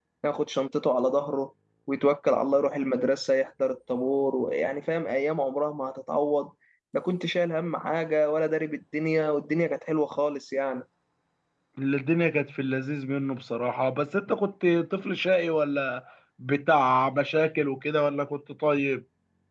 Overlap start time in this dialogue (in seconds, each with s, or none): none